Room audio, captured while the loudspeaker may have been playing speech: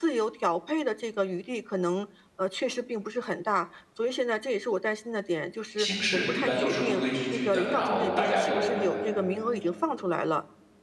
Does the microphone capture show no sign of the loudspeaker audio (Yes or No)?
No